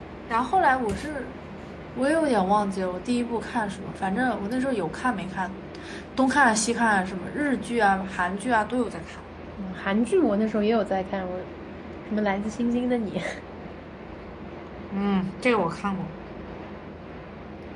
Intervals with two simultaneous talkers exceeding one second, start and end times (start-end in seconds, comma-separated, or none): none